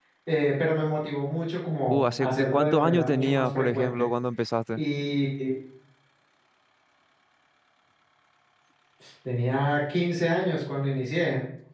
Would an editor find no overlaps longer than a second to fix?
No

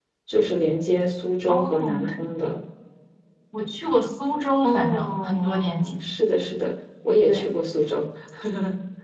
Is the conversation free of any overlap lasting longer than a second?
No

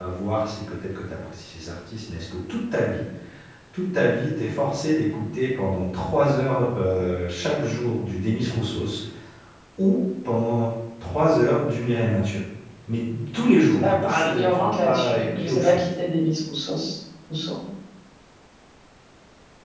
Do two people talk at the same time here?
Yes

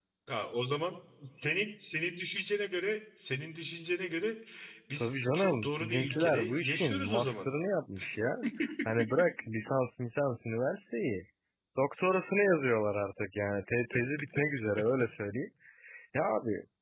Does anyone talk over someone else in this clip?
Yes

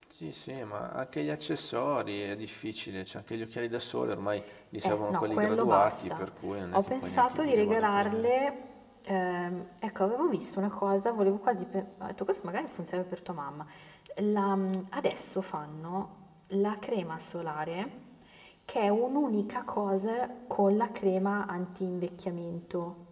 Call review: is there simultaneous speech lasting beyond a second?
Yes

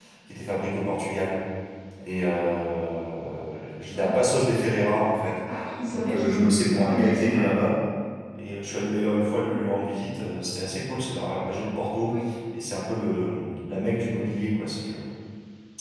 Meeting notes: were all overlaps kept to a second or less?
No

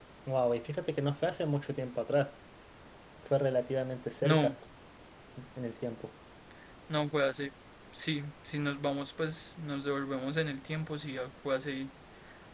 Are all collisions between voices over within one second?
Yes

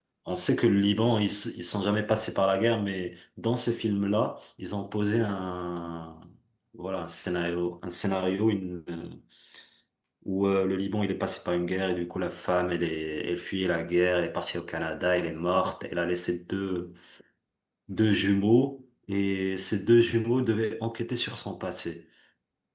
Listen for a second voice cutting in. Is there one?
No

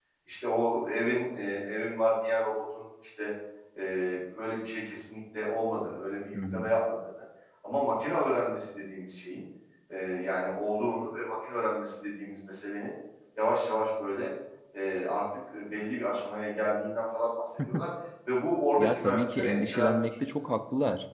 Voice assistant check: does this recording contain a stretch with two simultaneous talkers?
Yes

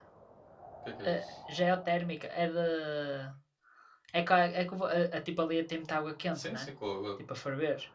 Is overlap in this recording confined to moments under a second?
Yes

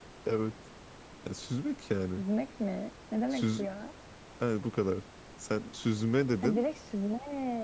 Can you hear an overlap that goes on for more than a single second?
No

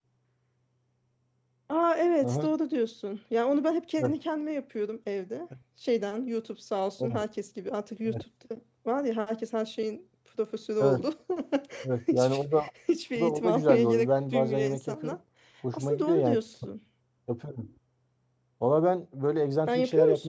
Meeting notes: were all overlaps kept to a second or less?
No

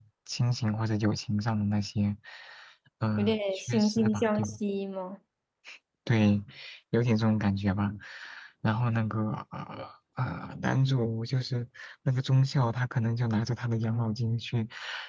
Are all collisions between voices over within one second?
No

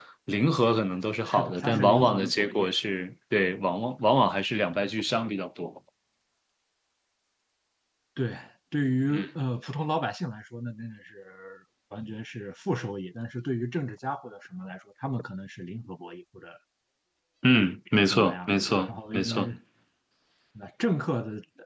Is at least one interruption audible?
Yes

